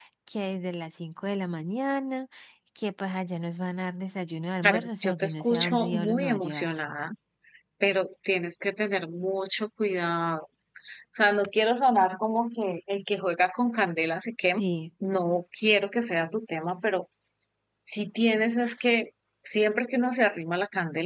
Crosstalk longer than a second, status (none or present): present